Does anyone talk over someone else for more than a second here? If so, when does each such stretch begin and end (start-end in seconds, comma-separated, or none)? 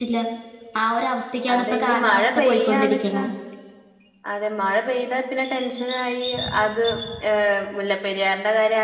1.5-3.2